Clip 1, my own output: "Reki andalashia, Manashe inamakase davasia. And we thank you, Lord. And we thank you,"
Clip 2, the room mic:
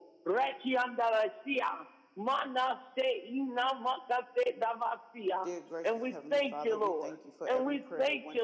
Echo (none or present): present